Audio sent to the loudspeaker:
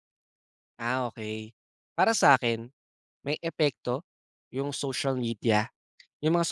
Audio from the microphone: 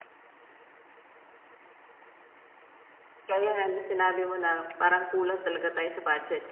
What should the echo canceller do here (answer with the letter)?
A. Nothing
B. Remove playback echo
A